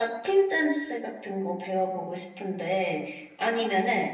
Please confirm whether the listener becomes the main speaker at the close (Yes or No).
No